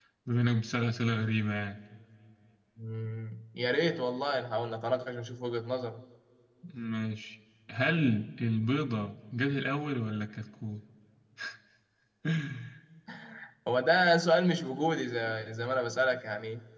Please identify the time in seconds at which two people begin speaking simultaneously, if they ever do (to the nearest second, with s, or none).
none